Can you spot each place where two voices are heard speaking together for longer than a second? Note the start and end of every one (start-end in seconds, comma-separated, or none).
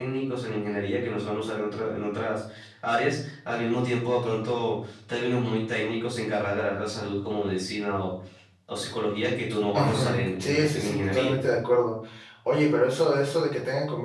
9.7-11.3